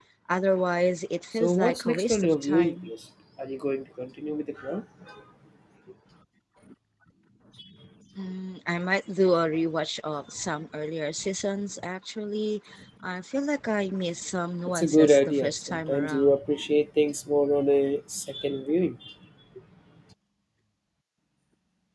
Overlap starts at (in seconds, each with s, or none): 1.3 s